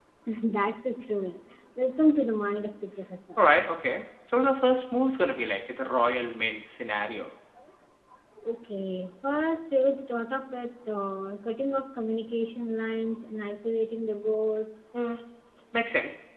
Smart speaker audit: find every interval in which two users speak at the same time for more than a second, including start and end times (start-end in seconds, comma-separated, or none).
none